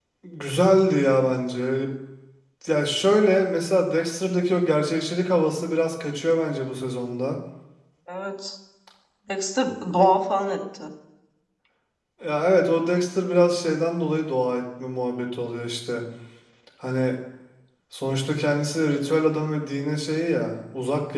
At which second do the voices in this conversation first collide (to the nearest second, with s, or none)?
none